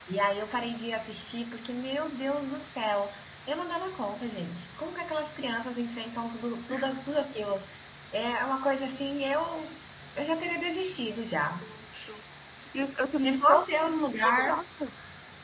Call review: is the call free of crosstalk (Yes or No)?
No